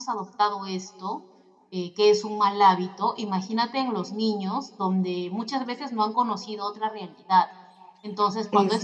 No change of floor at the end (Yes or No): Yes